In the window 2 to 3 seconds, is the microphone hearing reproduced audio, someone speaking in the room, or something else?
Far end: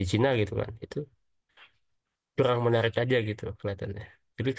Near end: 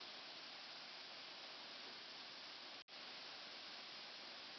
neither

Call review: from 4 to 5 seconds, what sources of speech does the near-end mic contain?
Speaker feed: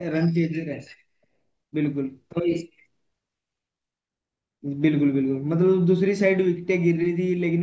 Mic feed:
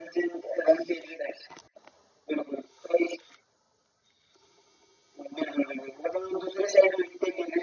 neither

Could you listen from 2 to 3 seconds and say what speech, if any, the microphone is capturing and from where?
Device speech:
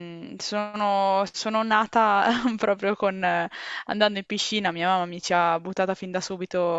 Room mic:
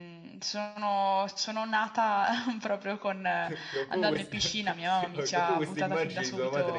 echo only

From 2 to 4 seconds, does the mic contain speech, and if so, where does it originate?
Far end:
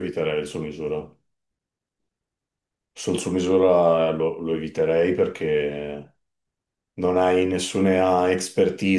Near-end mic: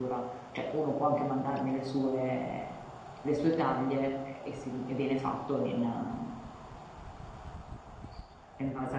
user only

